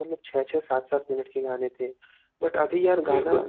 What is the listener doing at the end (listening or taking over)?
listening